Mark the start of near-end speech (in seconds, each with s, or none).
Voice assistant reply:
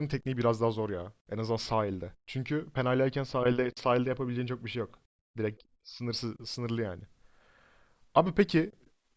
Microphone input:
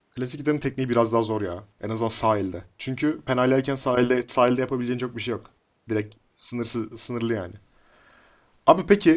none